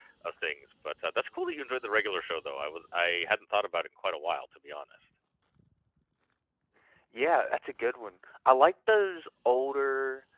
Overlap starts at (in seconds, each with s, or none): none